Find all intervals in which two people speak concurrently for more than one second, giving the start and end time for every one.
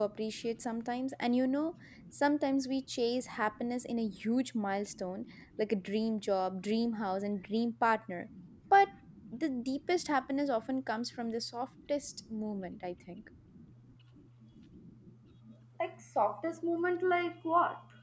none

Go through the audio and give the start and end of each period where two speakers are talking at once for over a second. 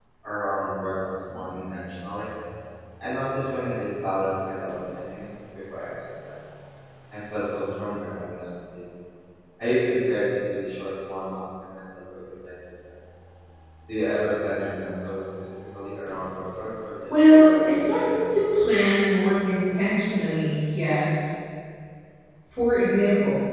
17.2-18.9

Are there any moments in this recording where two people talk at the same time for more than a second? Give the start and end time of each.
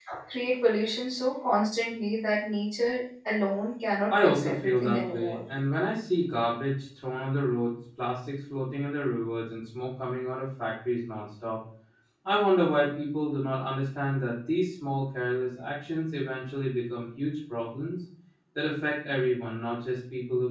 4.1-5.3

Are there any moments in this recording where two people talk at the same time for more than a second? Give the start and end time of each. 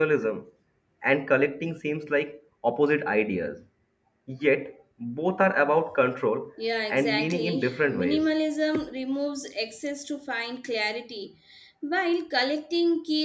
6.9-8.3

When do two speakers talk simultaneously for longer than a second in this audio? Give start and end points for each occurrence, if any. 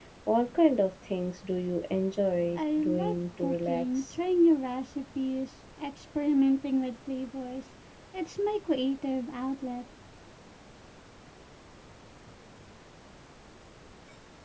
2.6-4.1

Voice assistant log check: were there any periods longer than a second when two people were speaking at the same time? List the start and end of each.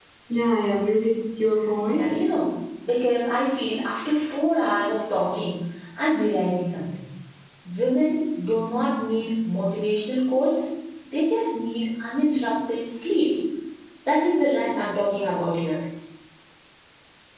none

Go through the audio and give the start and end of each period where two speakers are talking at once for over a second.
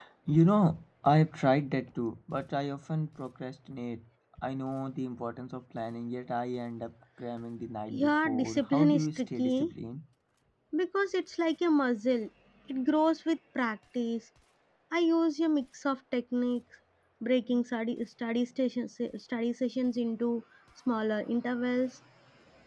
7.9-9.7

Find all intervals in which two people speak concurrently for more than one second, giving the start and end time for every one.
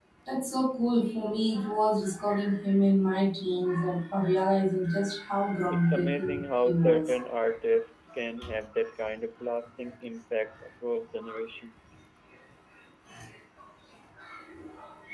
5.7-7.1

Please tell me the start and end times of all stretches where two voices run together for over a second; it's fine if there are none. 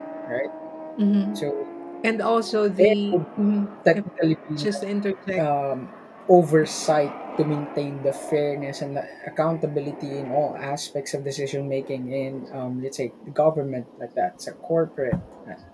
none

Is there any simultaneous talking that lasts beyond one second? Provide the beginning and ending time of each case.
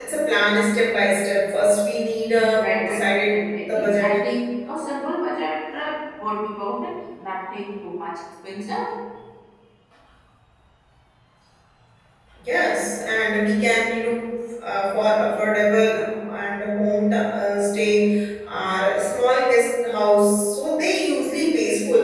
2.6-4.2

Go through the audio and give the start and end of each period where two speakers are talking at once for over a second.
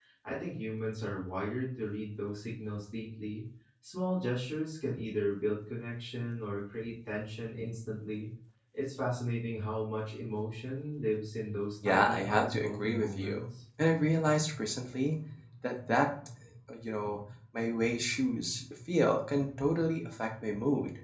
11.8-13.4

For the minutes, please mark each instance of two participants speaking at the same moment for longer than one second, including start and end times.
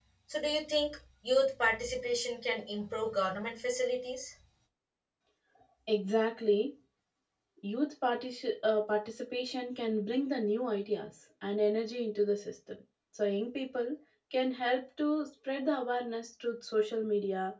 none

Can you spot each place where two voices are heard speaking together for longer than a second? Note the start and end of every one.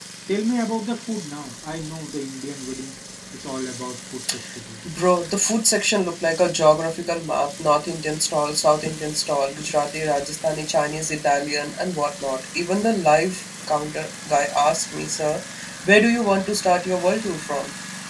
none

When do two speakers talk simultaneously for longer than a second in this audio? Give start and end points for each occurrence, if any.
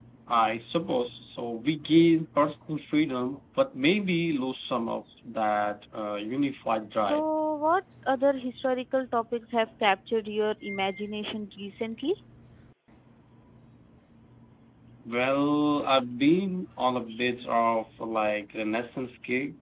none

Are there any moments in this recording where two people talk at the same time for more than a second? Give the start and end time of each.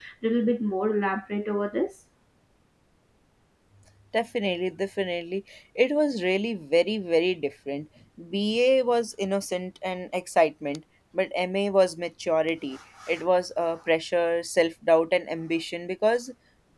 none

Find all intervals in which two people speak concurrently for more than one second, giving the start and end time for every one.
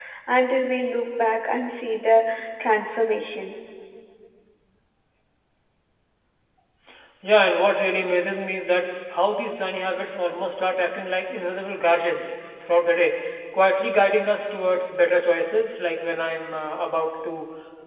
none

